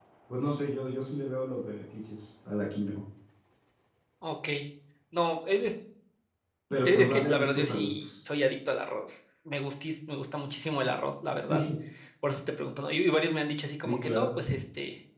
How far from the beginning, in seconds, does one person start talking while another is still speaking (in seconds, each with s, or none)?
6.8 s